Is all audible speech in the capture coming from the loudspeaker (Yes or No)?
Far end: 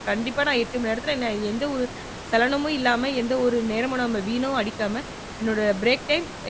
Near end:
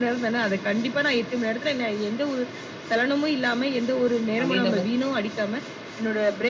No